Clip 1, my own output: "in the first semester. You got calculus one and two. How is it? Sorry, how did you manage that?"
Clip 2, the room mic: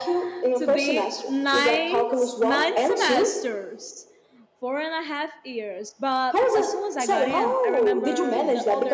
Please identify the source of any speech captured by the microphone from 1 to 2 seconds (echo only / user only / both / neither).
both